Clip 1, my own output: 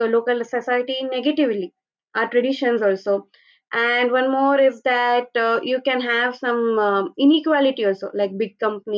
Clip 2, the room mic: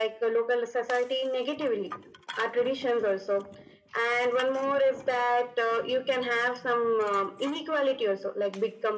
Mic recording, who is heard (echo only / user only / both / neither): echo only